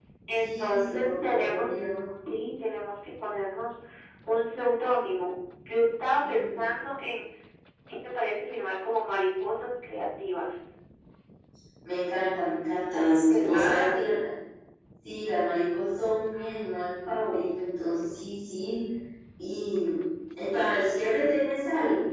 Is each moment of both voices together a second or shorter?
No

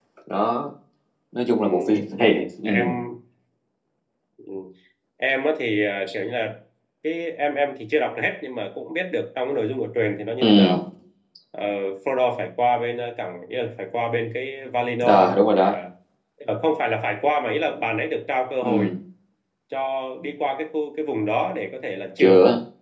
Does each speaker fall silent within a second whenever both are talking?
Yes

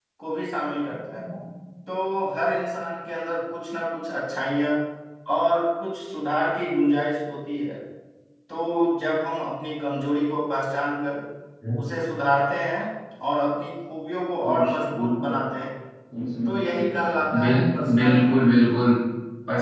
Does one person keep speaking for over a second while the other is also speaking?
Yes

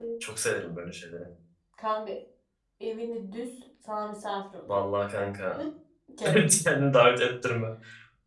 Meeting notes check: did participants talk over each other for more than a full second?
No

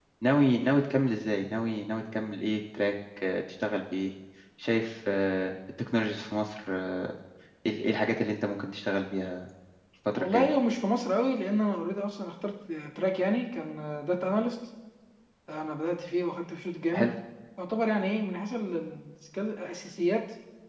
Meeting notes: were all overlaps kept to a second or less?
Yes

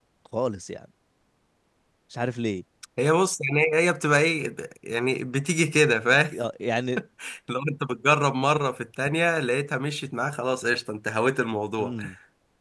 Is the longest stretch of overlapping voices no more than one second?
Yes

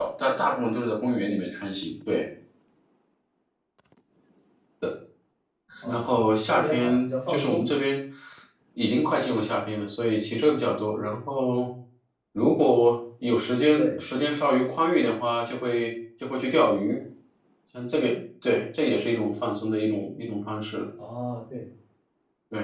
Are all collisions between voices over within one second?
No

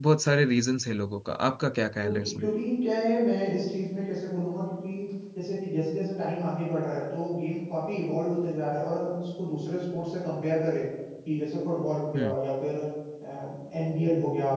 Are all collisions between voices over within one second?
Yes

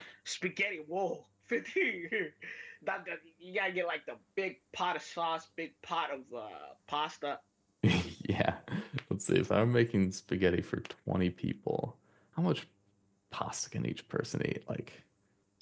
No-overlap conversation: Yes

